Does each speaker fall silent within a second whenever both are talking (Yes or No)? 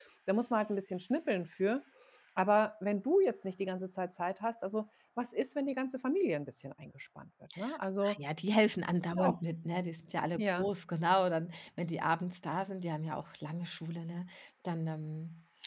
Yes